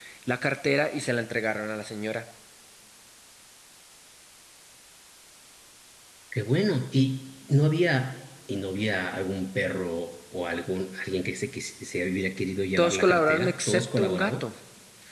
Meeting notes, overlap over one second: present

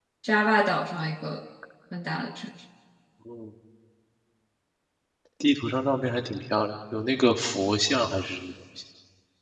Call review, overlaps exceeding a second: none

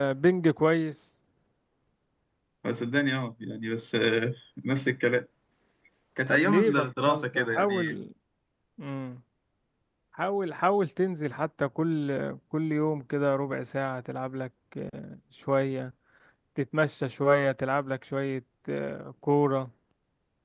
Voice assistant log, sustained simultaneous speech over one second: present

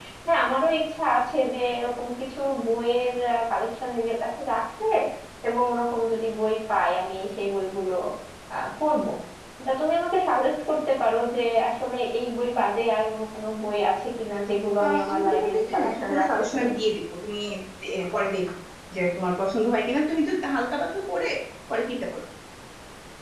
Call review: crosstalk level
present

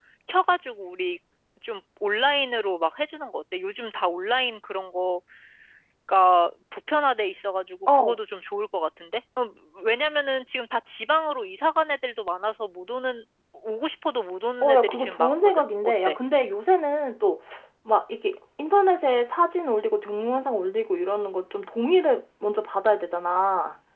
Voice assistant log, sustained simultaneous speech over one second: present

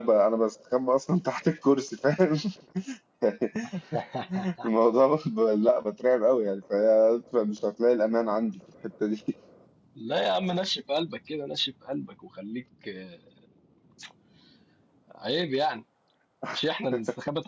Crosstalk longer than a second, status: none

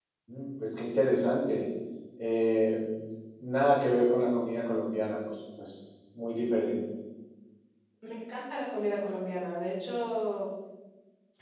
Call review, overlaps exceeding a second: none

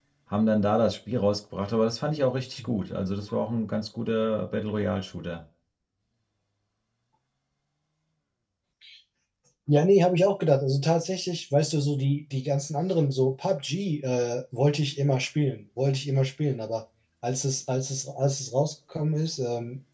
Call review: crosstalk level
none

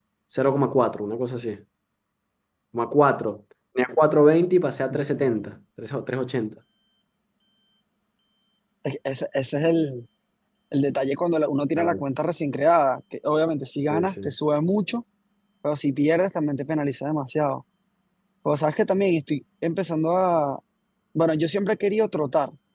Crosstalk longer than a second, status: none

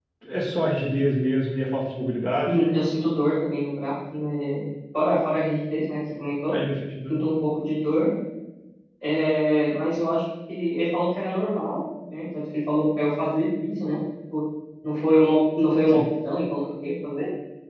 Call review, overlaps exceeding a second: none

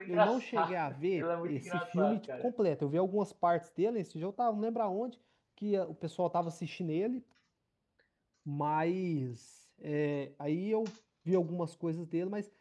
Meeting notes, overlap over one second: present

